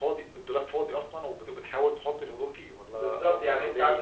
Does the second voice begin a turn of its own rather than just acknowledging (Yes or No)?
Yes